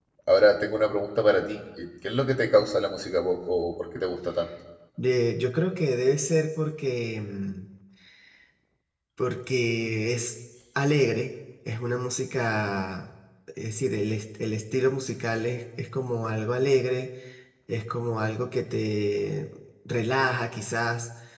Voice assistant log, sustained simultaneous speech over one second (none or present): none